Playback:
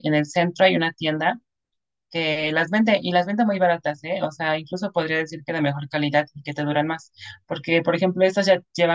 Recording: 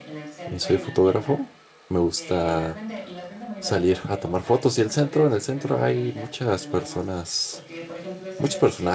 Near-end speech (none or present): present